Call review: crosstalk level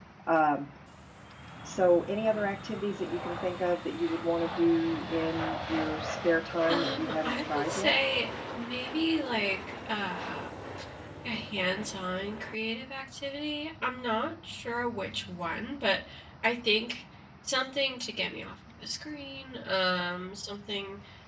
present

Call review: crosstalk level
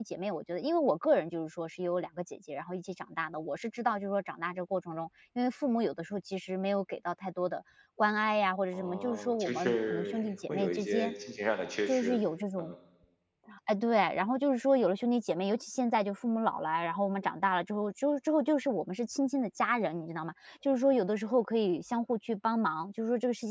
present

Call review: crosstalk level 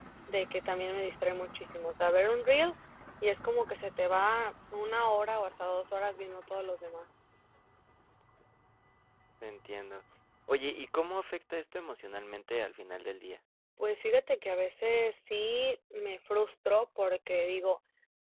none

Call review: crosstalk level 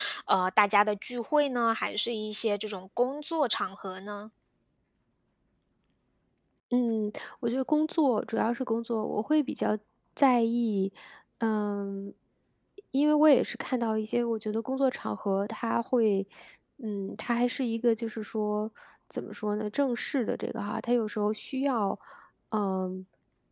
none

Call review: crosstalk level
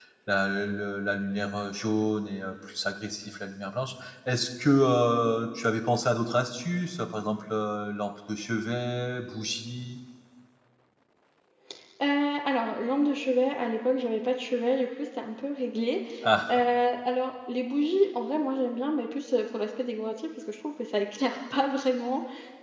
none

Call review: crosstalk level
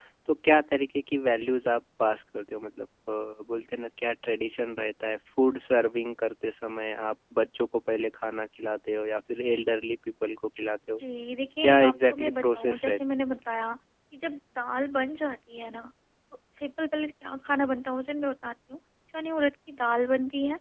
present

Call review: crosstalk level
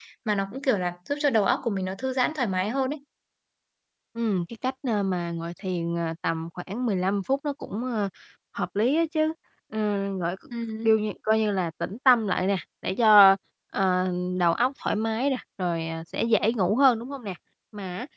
none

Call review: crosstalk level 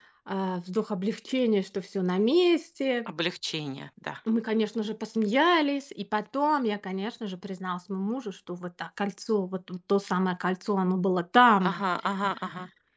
none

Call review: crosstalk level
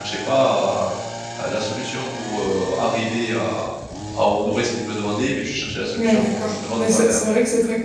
present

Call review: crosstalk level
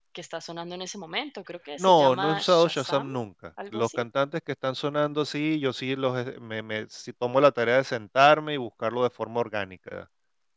present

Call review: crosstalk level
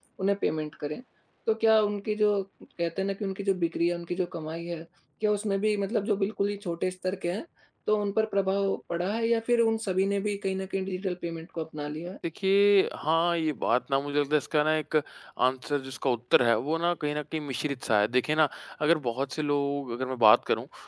none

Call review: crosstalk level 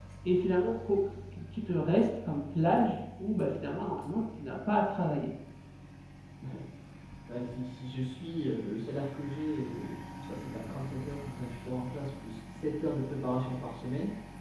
none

